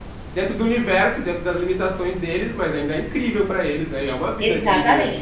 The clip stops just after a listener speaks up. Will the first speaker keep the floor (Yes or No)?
No